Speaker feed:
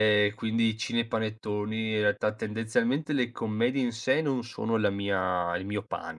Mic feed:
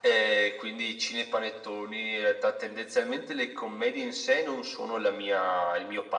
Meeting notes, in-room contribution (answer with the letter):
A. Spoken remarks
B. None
B